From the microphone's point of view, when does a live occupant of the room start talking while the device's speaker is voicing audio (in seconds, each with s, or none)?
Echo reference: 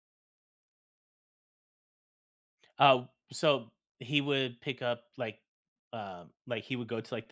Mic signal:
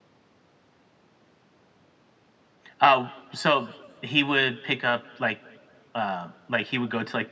none